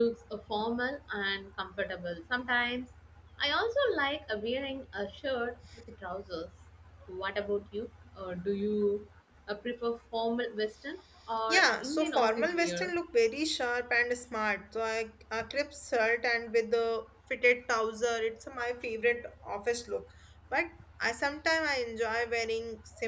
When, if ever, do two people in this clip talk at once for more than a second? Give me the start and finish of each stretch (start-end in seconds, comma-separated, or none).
11.5-12.9